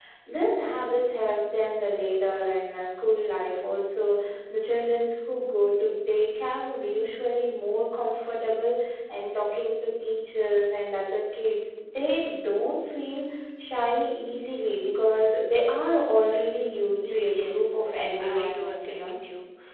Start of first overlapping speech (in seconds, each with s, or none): 17.0 s